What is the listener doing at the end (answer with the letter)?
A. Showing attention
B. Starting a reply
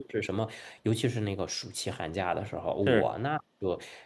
A